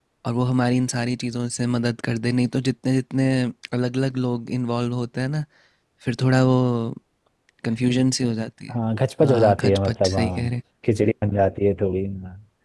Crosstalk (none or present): present